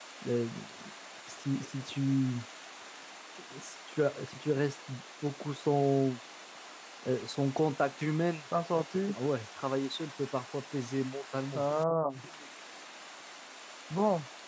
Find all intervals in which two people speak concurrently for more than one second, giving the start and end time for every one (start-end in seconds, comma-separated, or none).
none